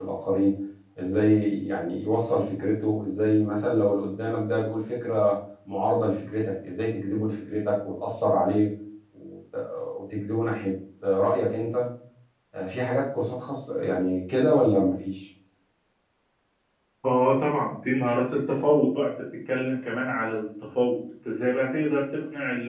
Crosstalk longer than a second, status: none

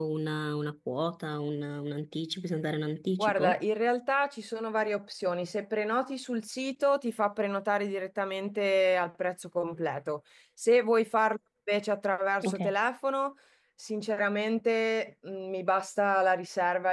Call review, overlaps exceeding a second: none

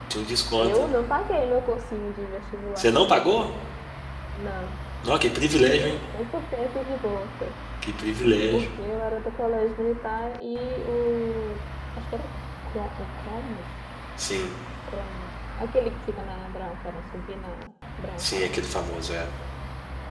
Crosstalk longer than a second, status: none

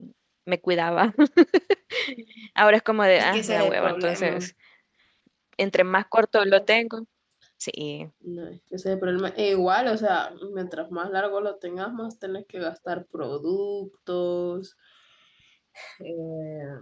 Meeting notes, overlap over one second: present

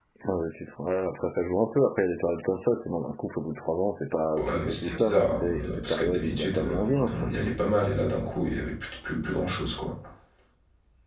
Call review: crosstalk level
present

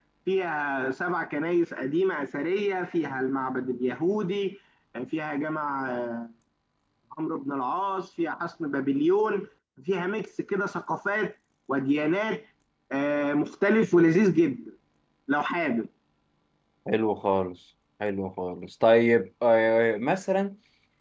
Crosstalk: none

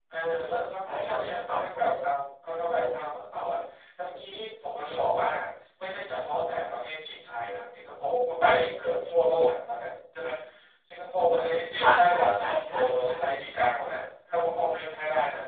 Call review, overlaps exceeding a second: present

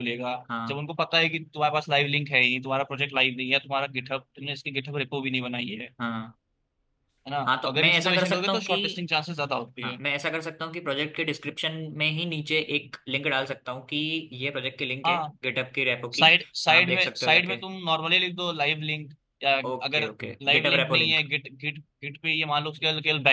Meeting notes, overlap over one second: present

